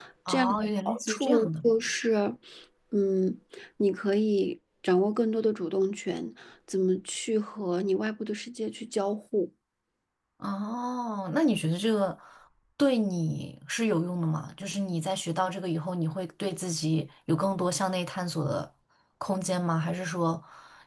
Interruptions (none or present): present